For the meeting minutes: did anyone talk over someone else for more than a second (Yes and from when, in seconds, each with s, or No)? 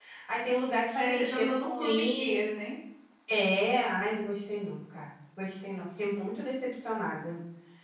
Yes, from 0.9 s